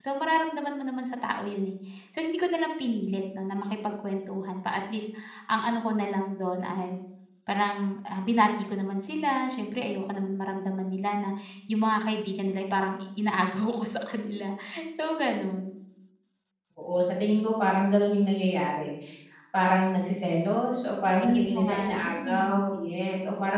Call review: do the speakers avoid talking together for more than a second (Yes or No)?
No